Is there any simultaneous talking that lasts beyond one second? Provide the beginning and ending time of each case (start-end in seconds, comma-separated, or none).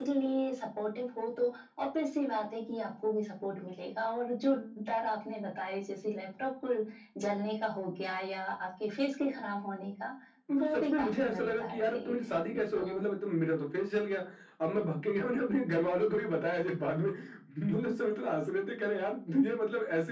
10.5-12.1